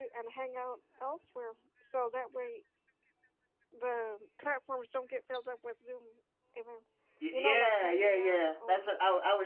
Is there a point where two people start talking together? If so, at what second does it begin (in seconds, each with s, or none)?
7.3 s